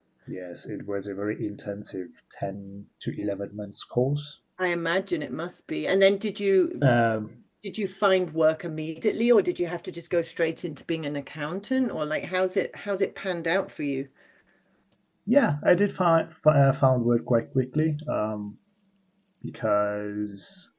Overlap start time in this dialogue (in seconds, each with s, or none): none